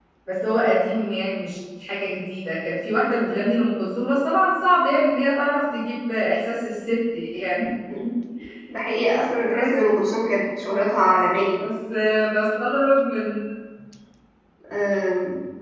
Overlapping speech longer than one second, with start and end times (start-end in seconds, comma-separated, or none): none